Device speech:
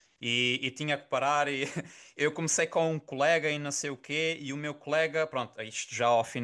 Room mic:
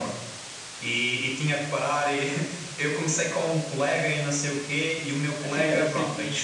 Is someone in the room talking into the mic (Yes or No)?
Yes